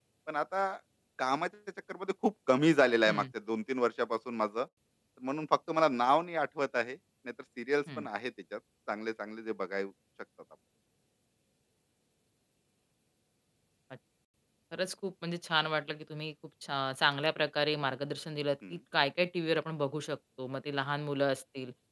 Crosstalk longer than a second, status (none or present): none